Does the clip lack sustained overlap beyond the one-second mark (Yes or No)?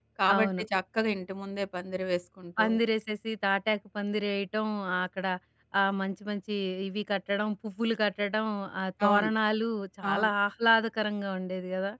Yes